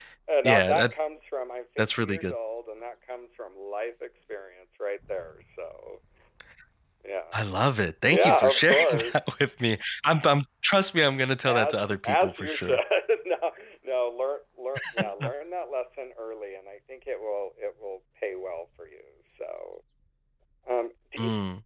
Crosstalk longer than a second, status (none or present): present